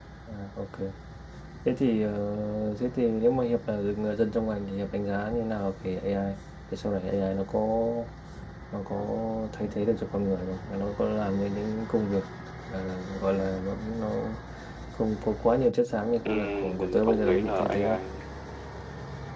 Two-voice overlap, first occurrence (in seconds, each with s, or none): 16.2 s